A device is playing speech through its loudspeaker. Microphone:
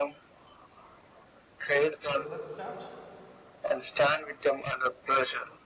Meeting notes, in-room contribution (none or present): present